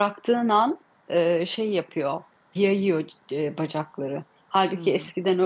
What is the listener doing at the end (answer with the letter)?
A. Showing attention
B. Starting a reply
A